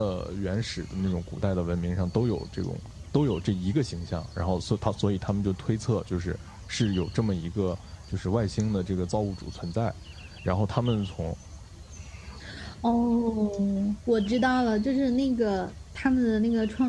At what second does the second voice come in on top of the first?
none

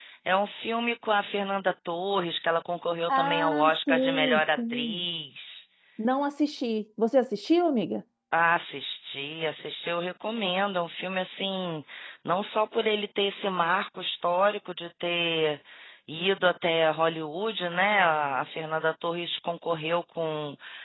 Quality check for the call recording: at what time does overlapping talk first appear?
3.1 s

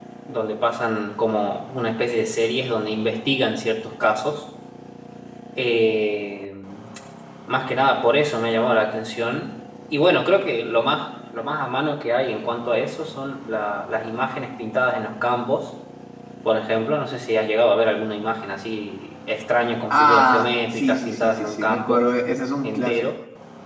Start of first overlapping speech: 19.9 s

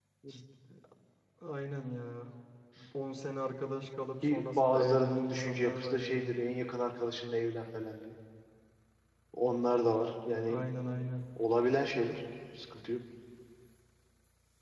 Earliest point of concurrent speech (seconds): 4.2 s

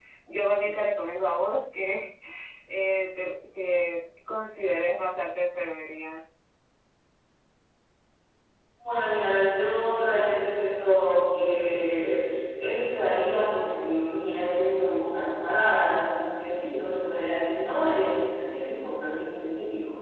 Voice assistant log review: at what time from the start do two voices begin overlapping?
none

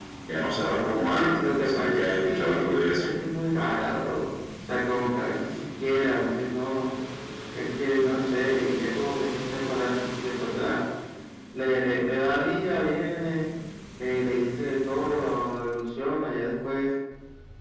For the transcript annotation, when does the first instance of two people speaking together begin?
0.9 s

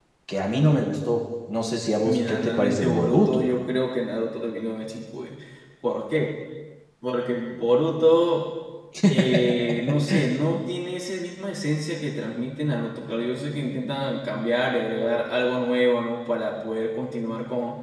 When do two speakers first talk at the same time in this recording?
2.0 s

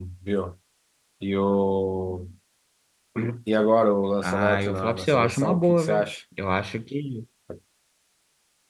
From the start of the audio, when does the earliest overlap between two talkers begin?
4.2 s

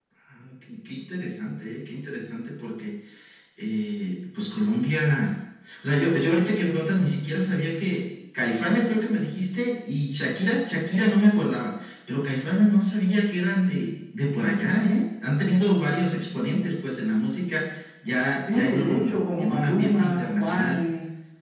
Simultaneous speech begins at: 18.5 s

